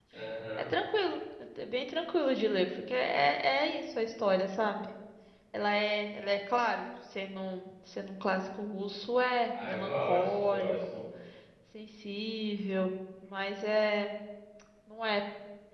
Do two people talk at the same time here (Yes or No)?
Yes